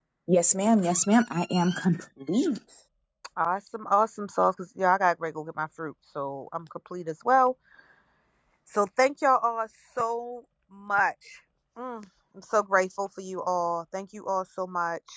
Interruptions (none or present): none